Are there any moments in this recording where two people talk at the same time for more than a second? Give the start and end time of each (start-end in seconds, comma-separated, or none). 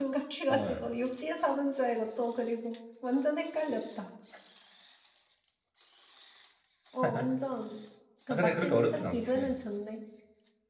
8.3-9.5